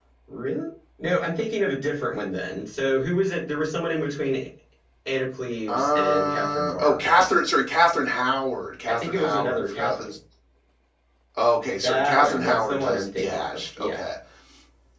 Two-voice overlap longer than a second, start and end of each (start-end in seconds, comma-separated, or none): 5.7-7.0, 8.9-10.1, 11.8-14.0